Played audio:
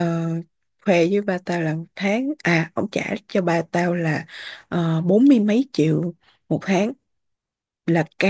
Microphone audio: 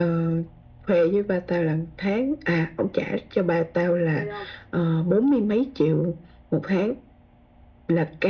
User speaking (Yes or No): Yes